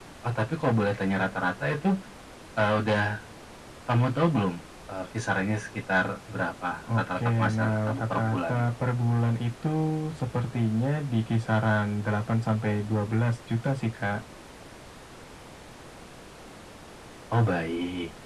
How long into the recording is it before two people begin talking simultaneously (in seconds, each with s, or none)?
6.9 s